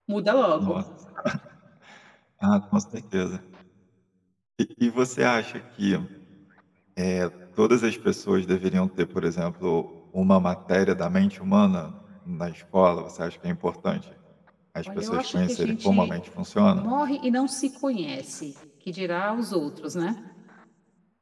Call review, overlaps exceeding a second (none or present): present